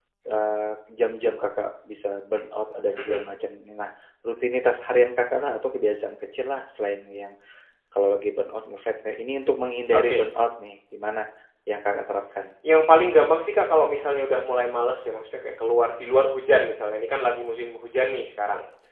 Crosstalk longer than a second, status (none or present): none